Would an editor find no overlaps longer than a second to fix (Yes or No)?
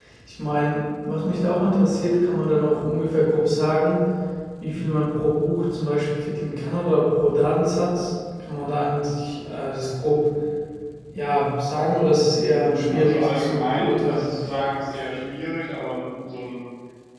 No